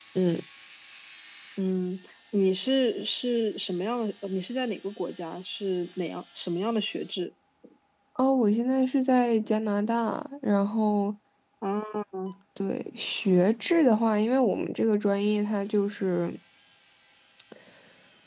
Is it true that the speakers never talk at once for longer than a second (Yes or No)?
Yes